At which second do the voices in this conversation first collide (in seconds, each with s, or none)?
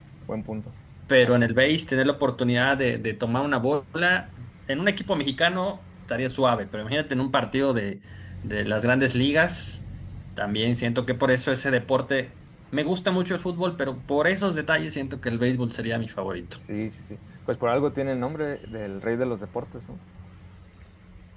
none